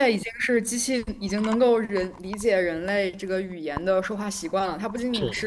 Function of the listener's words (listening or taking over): listening